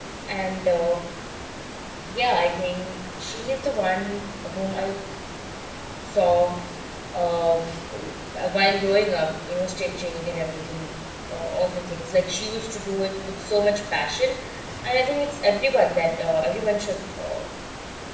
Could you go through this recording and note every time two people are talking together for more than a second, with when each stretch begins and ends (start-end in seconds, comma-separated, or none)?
none